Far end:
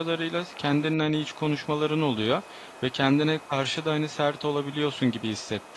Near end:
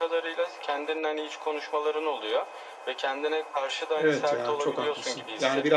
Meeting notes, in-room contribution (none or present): present